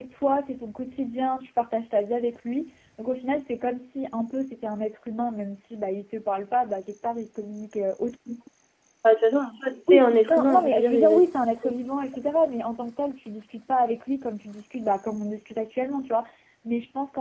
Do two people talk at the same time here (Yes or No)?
Yes